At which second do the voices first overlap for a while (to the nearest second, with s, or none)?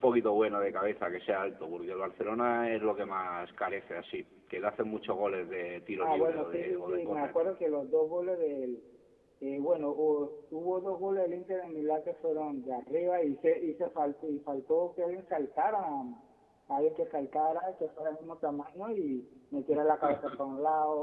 6 s